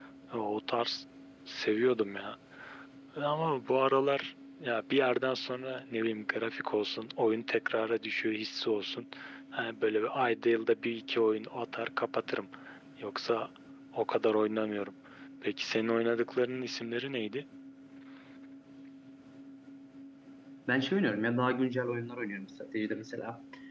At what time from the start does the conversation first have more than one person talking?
none

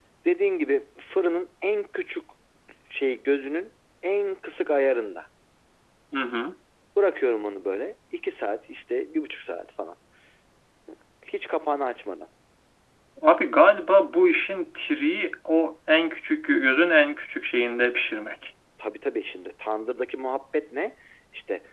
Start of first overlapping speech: none

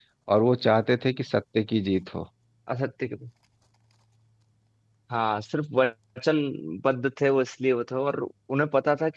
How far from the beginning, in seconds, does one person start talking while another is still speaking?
none

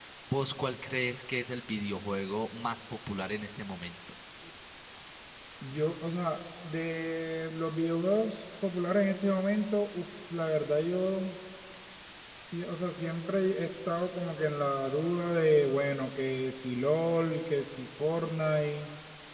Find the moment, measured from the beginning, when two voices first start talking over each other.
none

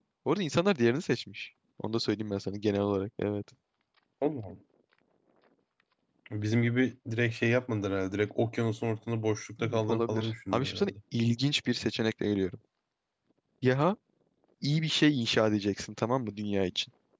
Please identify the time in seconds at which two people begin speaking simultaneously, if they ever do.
10 s

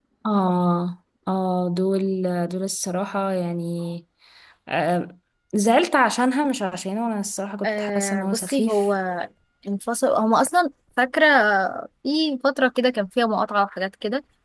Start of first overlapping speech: 8 s

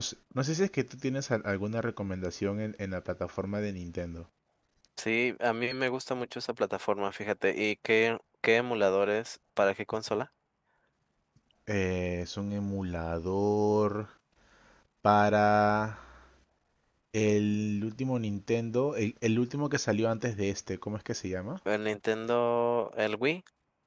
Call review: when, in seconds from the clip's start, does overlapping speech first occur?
none

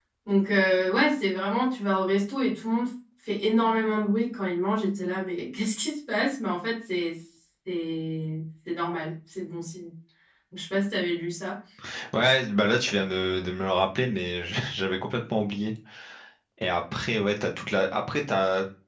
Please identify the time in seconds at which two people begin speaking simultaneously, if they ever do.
none

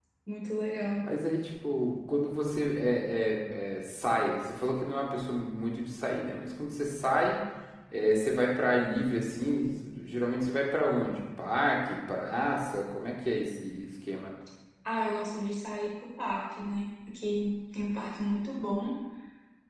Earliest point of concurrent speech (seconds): none

